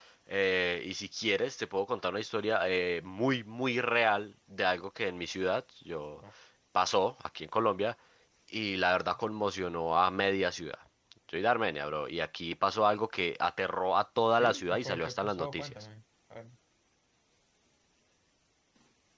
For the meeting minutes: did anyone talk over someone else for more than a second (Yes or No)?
Yes